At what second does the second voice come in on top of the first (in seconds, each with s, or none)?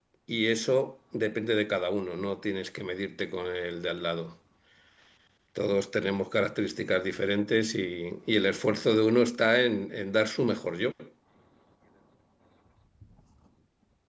none